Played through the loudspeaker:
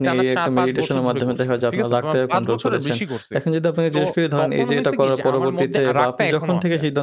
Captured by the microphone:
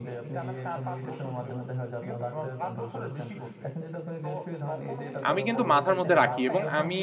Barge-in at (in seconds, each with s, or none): 5.3 s